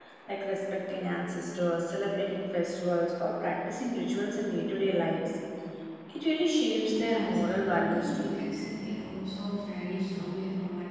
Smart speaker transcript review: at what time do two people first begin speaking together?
6.9 s

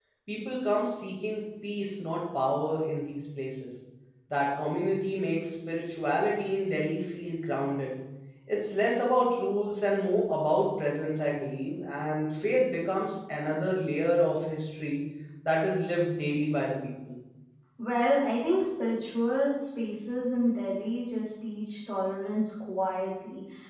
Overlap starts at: none

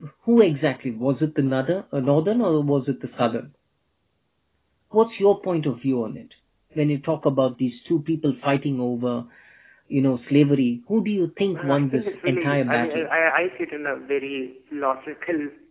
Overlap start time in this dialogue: 11.5 s

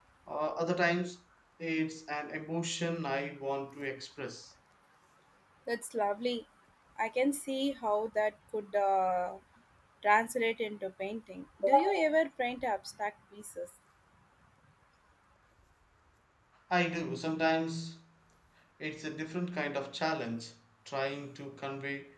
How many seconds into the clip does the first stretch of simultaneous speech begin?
none

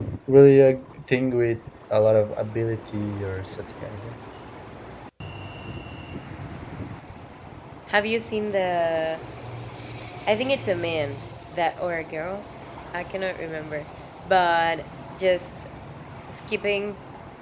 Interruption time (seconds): none

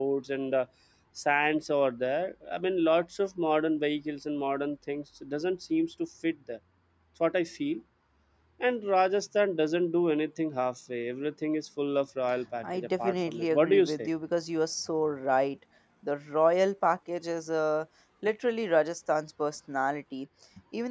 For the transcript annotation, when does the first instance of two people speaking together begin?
12.6 s

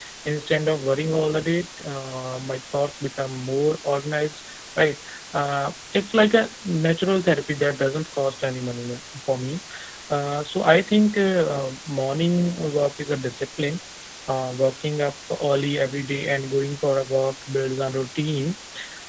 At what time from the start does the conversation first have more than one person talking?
none

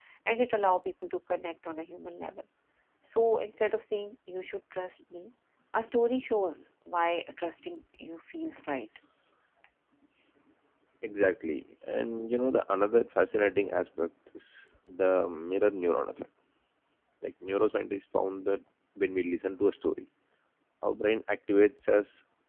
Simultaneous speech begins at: none

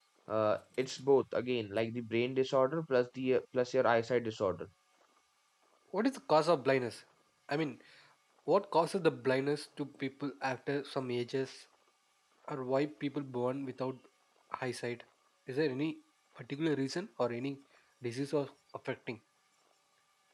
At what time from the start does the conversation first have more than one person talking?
none

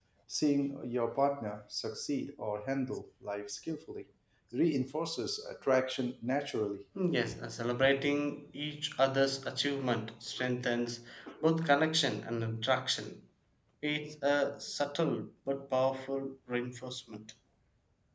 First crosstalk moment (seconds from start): none

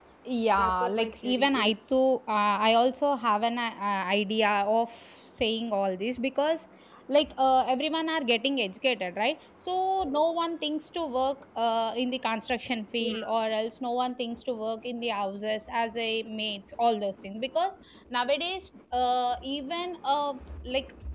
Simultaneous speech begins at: 0.5 s

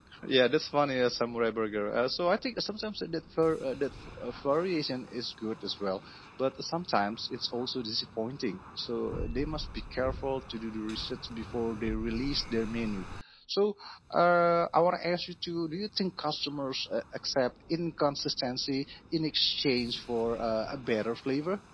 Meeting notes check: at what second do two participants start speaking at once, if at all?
none

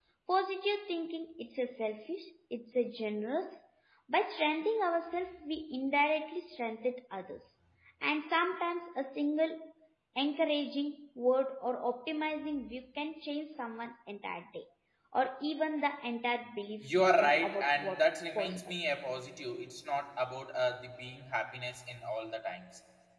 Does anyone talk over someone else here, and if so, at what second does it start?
16.8 s

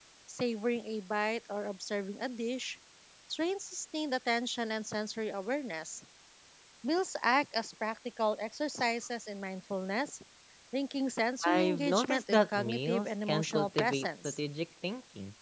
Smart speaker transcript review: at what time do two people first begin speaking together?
11.4 s

